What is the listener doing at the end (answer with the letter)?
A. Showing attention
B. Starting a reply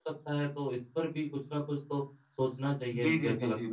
B